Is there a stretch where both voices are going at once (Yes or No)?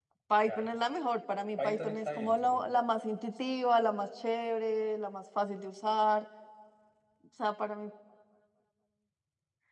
Yes